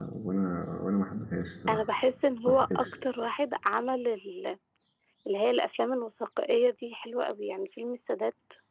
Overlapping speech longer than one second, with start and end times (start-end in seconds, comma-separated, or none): none